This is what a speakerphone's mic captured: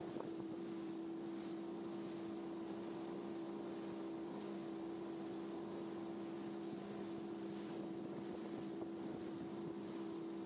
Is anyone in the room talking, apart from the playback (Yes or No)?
No